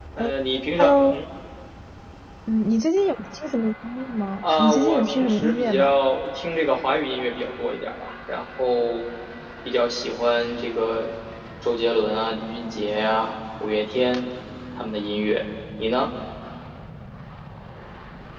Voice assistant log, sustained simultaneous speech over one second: present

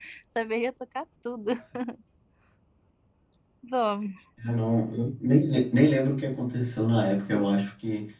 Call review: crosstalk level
none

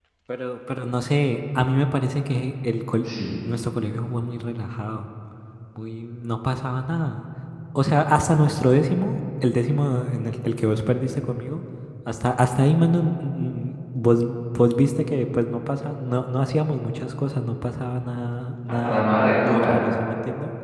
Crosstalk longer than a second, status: none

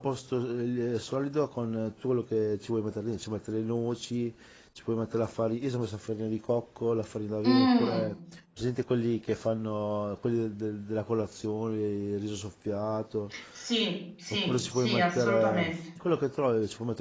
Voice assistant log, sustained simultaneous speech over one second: present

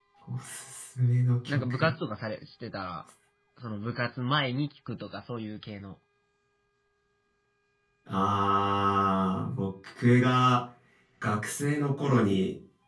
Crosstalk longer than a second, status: none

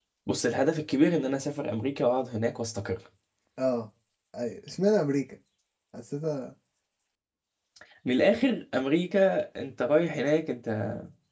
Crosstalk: none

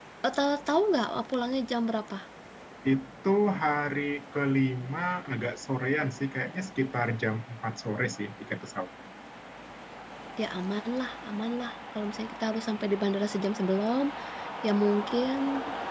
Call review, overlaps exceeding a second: none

